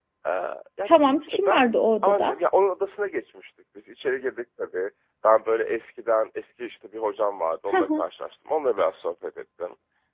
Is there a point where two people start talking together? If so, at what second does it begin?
0.8 s

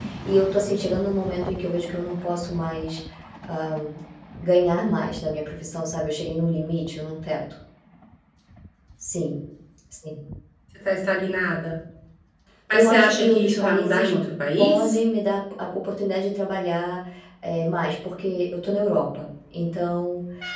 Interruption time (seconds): 12.7 s

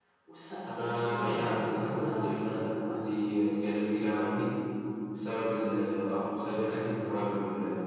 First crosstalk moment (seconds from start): 0.7 s

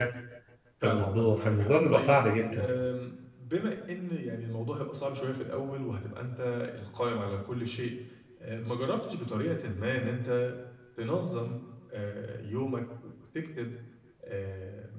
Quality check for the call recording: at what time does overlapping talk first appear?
0.8 s

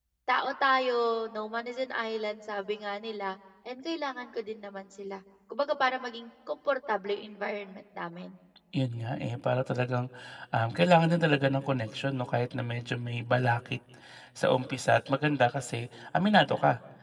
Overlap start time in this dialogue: none

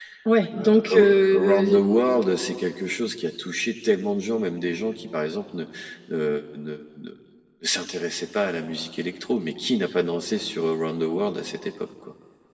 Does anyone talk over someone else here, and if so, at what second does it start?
0.6 s

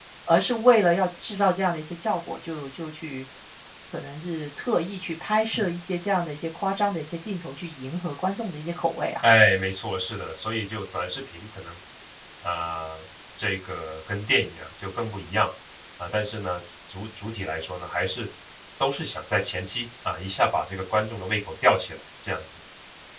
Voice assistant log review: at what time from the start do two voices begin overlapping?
none

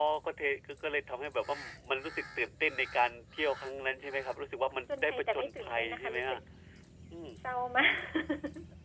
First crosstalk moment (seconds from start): 5.0 s

